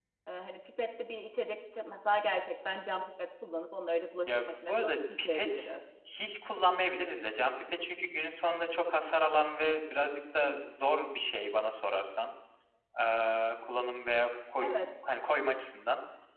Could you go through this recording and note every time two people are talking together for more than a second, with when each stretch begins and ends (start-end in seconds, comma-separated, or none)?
4.3-5.7